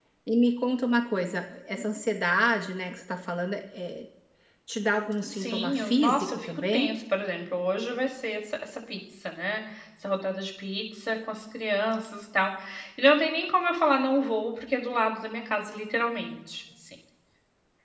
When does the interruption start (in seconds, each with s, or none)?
5.3 s